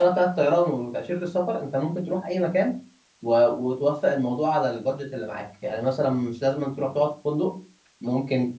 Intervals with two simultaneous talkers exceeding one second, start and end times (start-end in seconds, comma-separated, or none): none